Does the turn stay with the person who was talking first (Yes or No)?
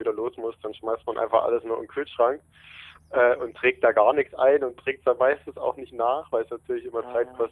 Yes